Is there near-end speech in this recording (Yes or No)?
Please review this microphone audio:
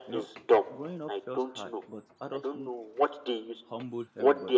Yes